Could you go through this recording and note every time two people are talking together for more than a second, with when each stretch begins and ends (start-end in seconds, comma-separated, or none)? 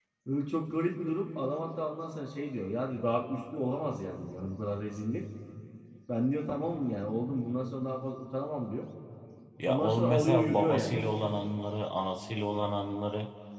9.6-11.0